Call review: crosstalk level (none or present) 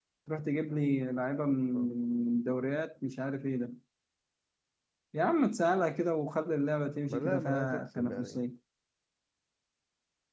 present